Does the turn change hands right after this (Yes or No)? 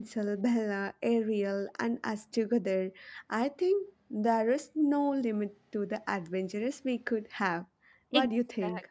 Yes